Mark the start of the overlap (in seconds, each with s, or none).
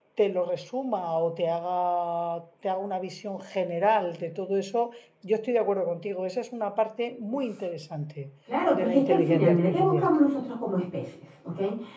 8.7 s